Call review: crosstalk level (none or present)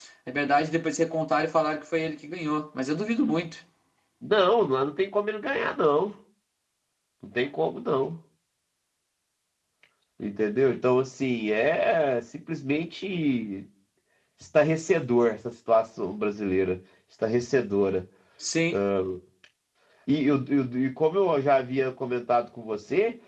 none